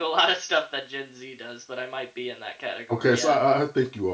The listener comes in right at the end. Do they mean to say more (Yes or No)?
Yes